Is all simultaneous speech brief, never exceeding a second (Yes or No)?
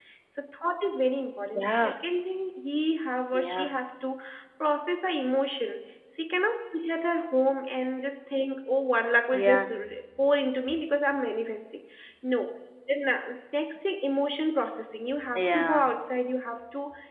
Yes